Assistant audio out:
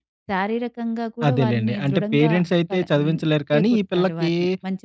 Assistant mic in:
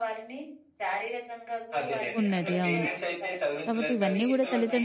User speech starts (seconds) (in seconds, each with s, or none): 2.2 s